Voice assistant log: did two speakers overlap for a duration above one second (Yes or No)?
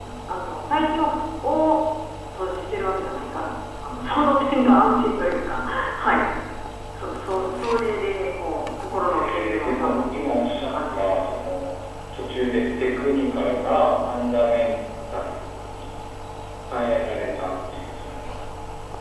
Yes